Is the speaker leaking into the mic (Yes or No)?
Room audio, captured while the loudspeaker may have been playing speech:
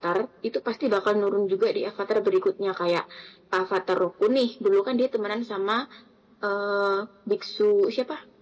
No